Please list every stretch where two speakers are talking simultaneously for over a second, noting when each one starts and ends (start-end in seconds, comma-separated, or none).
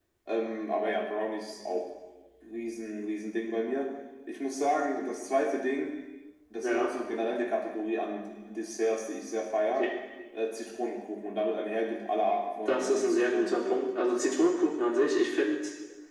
12.7-14.4